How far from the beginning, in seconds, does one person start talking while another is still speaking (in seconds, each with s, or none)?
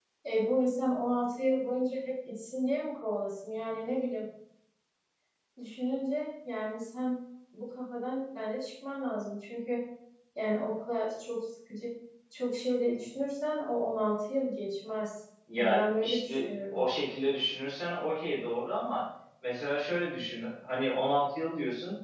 15.5 s